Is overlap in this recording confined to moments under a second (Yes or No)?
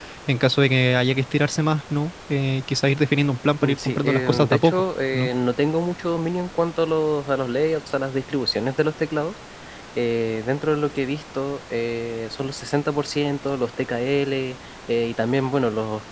No